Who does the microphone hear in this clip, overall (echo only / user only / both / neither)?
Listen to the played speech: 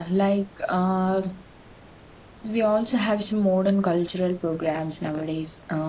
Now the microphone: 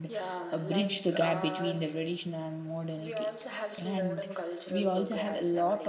both